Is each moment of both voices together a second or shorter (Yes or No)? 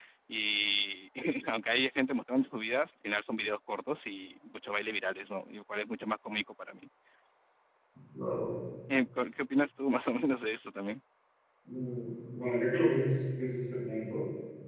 Yes